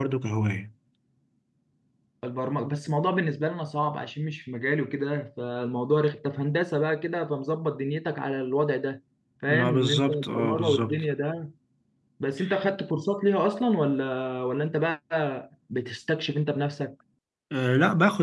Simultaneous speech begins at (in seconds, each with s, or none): 9.5 s